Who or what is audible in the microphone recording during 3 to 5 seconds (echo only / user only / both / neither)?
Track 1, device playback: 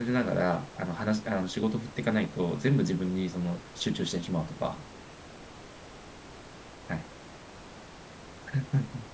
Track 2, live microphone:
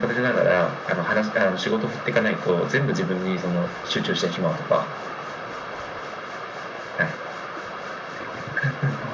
echo only